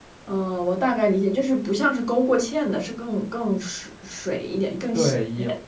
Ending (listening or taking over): taking over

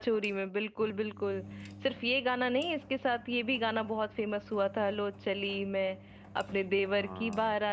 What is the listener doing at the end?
listening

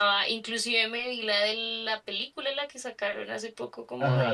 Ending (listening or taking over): taking over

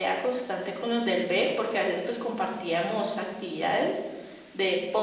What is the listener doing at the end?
listening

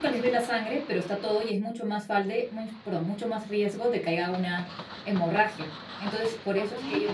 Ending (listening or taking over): listening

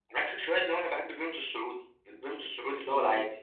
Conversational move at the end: taking over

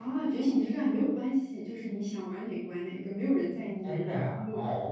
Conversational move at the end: taking over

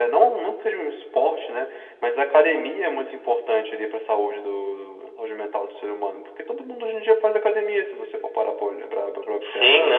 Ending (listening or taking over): taking over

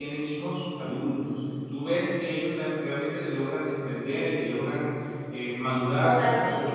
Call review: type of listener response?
taking over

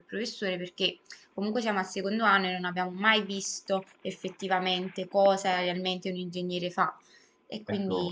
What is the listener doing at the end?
taking over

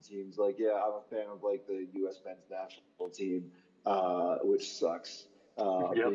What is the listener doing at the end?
listening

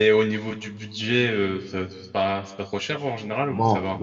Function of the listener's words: taking over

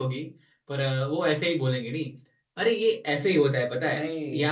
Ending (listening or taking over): listening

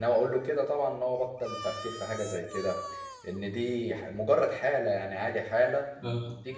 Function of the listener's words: listening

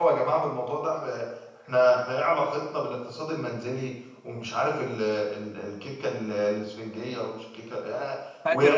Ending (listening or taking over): listening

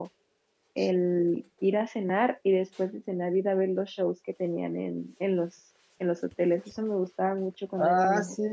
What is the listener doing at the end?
taking over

